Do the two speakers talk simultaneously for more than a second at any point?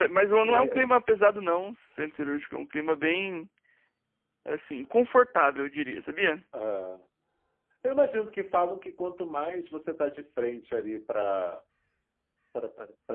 No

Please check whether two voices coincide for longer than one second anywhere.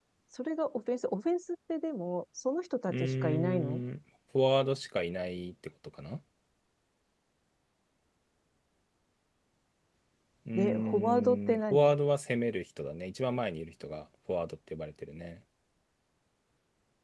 Yes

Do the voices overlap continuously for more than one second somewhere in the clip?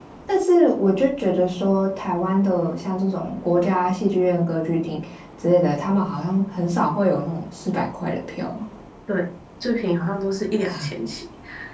No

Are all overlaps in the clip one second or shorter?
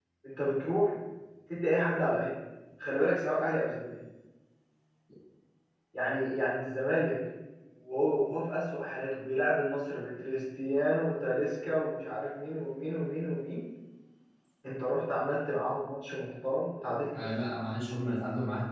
Yes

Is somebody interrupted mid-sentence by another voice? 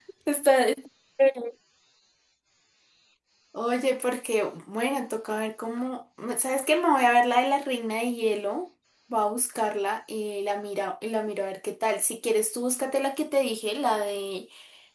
No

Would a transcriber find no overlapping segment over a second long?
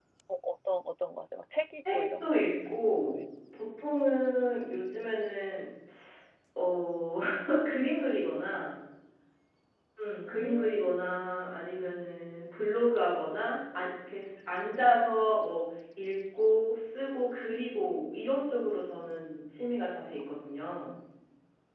No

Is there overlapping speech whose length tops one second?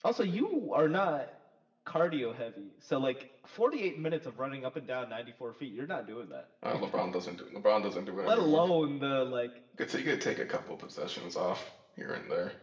No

